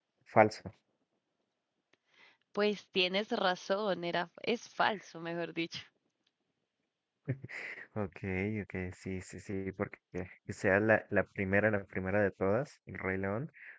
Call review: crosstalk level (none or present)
none